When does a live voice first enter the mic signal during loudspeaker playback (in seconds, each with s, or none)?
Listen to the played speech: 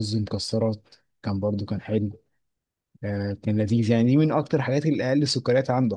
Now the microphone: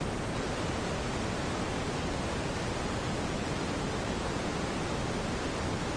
none